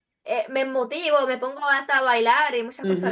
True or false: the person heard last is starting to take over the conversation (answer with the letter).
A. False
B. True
B